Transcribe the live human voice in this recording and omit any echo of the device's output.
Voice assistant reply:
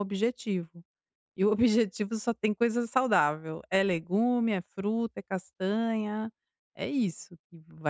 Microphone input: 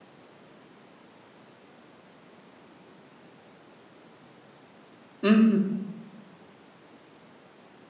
Uhum.

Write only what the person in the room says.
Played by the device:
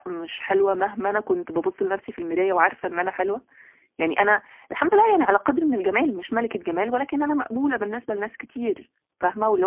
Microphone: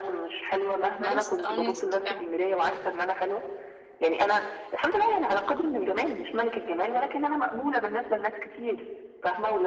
كويس آه إن أنتِ بتبقي عار

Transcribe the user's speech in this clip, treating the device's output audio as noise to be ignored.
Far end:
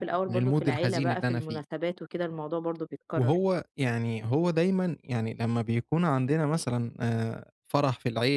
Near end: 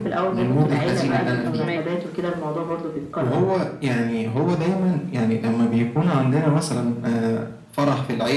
أيوه فاهماك،

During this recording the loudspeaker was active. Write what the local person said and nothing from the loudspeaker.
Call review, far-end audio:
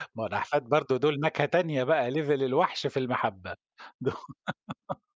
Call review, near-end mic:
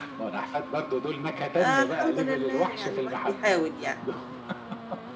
فالحمد لله يعني الواحد بيحاول يعني.

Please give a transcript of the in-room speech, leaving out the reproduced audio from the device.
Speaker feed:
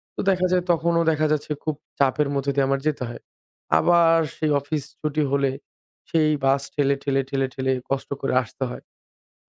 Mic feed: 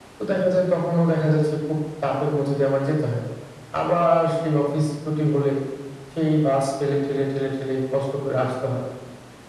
none

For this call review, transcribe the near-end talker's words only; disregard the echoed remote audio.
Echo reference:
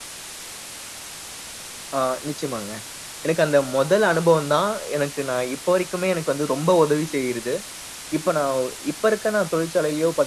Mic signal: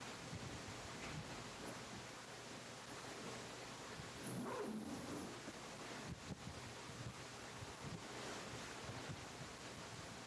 none

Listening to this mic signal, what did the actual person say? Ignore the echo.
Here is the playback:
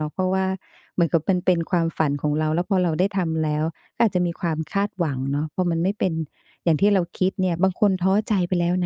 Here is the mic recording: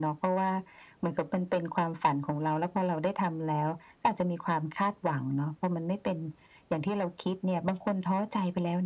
none

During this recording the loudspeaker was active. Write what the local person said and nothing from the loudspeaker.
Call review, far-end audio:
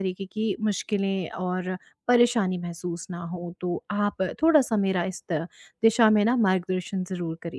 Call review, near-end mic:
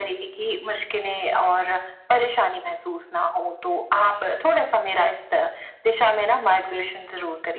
none

